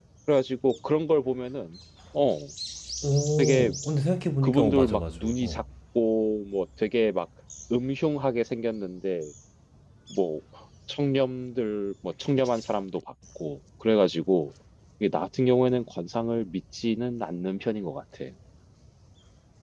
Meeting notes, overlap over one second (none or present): present